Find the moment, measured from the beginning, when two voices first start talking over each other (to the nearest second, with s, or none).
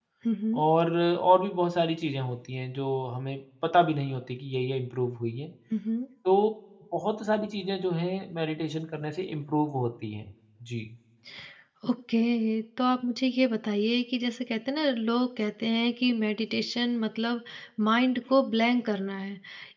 none